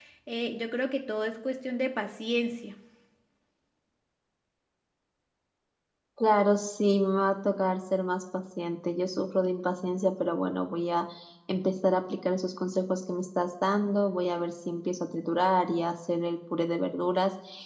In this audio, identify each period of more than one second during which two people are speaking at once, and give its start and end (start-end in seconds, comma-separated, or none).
none